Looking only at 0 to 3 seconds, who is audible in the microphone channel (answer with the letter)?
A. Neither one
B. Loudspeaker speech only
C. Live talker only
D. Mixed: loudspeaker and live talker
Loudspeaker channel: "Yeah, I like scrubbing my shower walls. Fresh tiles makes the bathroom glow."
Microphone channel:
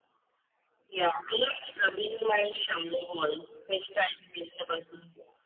B